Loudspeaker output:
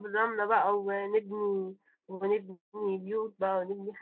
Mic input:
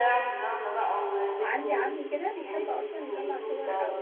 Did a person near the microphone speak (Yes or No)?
Yes